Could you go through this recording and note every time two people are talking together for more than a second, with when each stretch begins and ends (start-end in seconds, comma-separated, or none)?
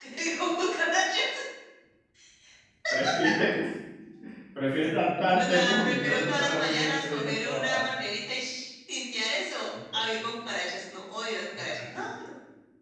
5.3-7.8